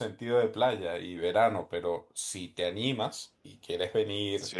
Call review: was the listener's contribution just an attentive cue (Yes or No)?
Yes